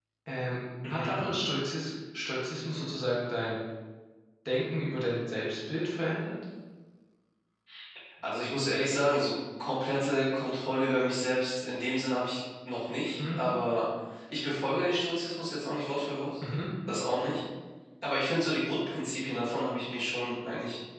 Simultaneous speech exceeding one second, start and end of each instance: none

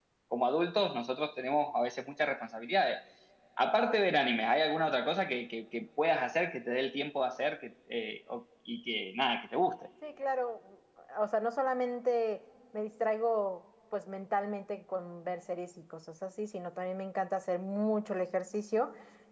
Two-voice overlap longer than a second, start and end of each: none

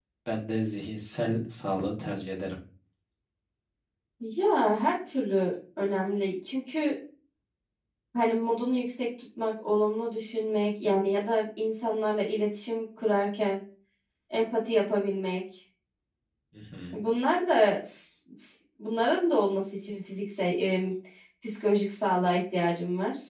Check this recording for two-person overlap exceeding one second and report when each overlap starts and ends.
none

